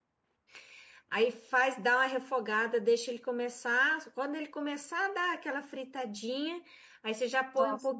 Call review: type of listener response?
listening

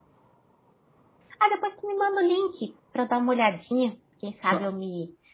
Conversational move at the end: listening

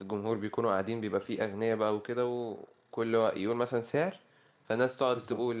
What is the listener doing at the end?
listening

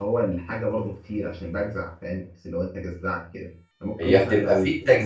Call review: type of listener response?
taking over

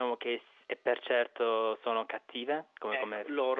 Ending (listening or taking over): taking over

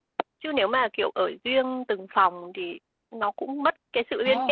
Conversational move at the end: taking over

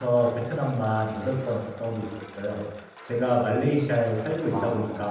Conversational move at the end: listening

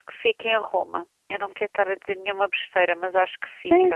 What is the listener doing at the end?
taking over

